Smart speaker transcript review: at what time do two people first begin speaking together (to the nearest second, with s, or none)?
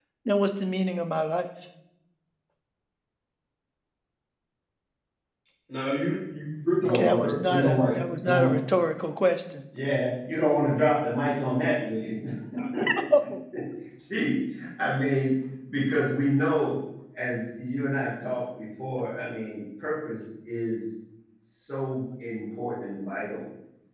7 s